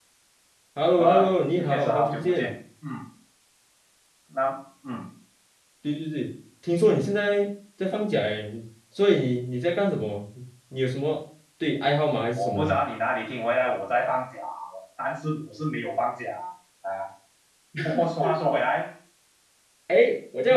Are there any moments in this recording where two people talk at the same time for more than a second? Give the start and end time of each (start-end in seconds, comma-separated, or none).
0.9-2.5